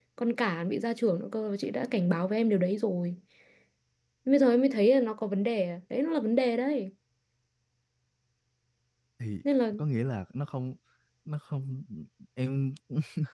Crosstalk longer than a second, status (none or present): none